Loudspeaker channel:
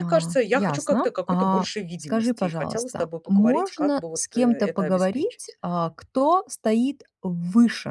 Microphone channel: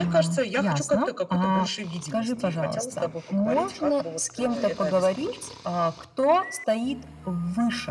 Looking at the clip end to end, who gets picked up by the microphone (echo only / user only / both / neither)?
echo only